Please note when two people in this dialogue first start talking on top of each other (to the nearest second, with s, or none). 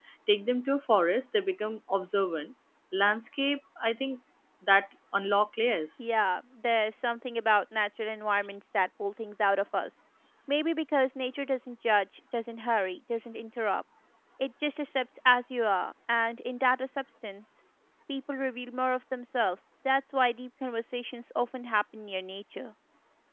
none